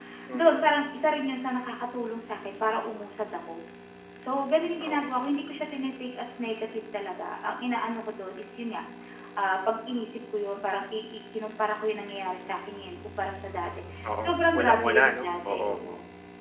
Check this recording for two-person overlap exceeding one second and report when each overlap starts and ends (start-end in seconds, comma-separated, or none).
14.2-15.7